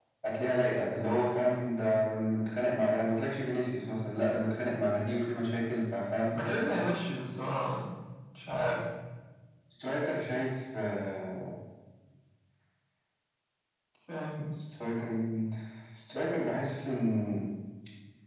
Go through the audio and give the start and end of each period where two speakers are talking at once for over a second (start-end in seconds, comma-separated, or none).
none